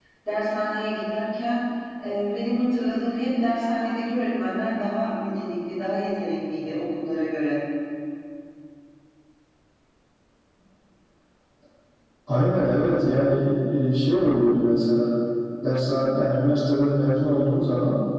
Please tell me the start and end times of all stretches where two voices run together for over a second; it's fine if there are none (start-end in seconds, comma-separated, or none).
none